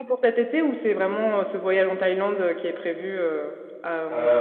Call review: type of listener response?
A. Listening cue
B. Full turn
B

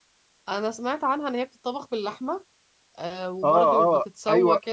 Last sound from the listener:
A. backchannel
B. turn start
B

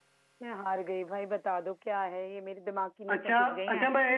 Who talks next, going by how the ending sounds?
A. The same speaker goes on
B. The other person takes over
B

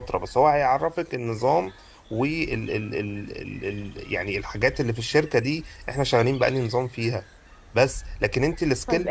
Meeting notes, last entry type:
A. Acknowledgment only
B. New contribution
B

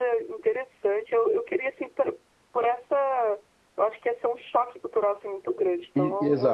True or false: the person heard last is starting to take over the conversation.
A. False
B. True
B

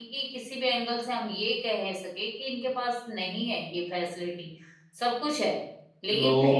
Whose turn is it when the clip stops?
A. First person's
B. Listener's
B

